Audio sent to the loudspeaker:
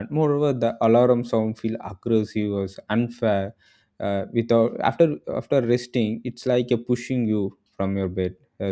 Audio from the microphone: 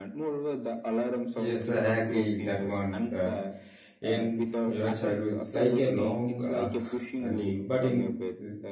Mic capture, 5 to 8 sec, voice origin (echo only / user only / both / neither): both